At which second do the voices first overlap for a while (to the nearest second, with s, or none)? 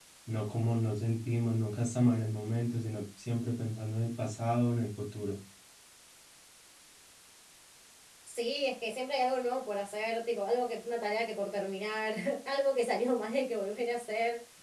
none